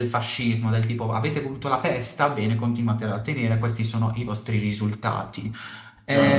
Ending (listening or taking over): listening